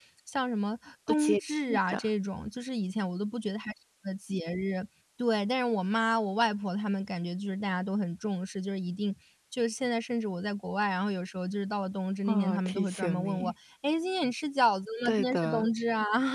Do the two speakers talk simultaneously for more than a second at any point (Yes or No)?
Yes